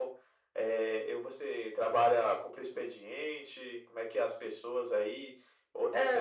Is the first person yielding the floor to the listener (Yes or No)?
No